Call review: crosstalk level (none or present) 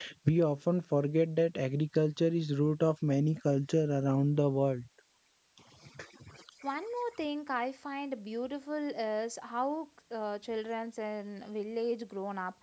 none